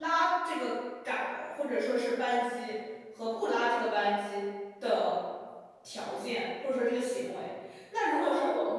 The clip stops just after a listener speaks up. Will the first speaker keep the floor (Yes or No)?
Yes